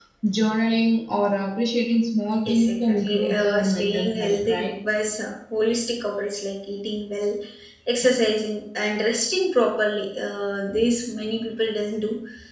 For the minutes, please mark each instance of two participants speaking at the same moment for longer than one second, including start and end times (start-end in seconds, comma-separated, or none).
2.5-4.7